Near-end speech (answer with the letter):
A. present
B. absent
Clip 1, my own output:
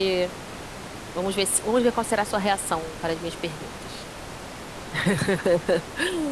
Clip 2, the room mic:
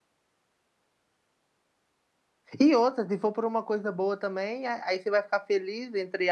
A